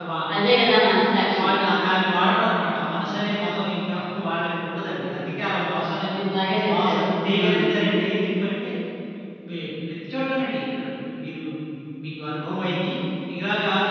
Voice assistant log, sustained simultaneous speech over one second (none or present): none